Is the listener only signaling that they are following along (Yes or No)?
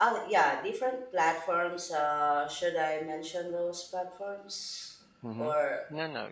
No